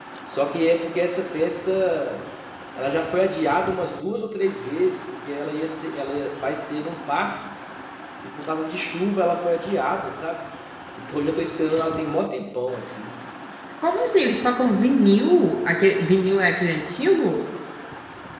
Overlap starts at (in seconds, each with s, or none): none